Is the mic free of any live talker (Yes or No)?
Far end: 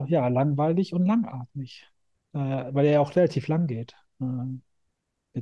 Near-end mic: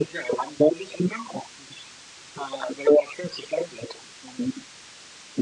Yes